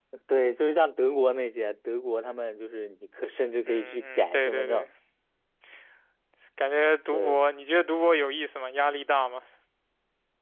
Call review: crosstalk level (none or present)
present